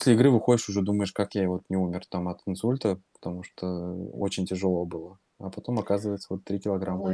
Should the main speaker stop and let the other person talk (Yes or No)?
Yes